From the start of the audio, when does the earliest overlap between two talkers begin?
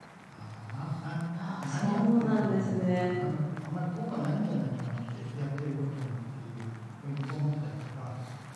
2 s

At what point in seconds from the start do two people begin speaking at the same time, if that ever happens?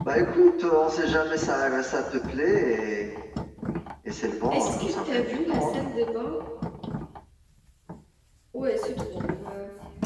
5 s

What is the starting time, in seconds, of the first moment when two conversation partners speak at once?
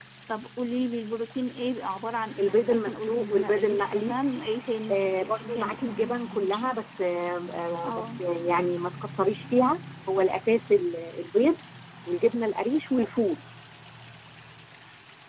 2 s

